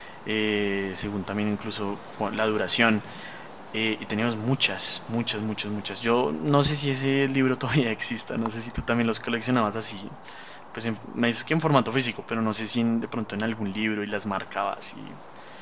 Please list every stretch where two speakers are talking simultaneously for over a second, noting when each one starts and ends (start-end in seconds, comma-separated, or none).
none